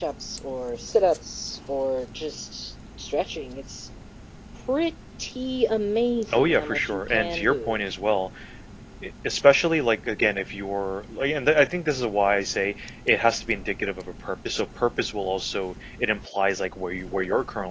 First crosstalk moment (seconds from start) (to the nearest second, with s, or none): 6 s